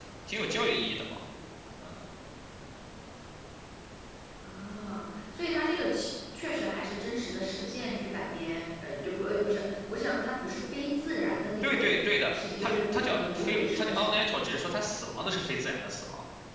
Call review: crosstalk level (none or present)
present